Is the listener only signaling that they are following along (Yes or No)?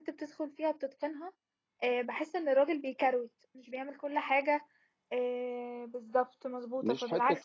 Yes